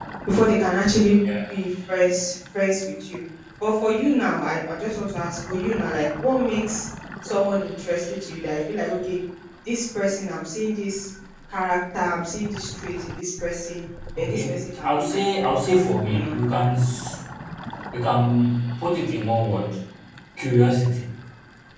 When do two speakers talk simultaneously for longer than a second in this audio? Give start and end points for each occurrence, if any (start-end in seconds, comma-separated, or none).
14.2-15.5